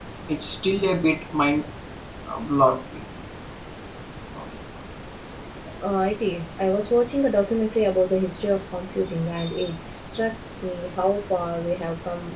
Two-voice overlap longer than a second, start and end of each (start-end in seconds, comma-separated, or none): none